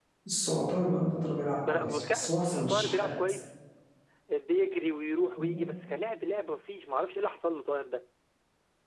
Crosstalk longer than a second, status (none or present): present